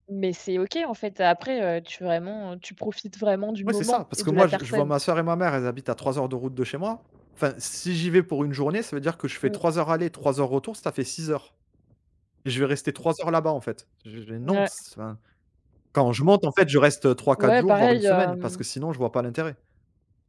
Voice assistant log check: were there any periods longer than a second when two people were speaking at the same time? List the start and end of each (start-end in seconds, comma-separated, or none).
3.7-4.9, 17.4-18.6